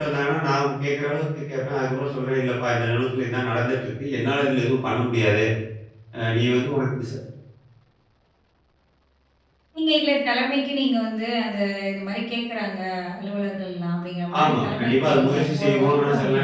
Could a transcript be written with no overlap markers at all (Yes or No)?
No